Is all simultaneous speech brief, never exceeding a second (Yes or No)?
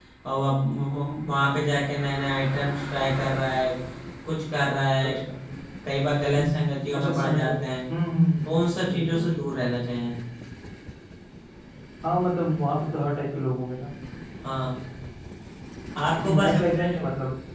No